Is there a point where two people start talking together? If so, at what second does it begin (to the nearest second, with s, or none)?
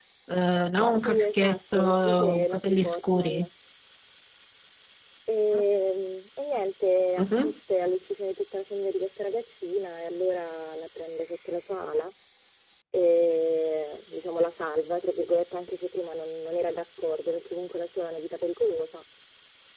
1 s